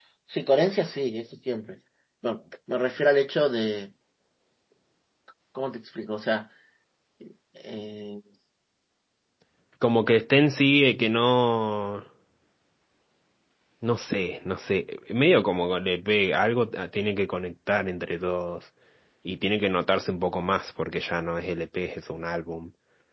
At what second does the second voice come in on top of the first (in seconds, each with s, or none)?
none